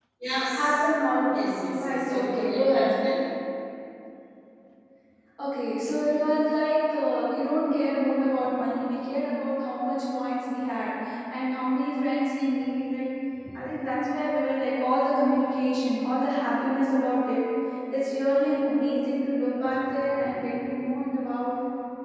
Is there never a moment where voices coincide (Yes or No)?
No